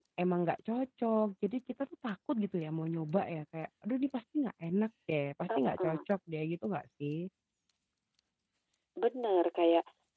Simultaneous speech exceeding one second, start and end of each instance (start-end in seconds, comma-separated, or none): none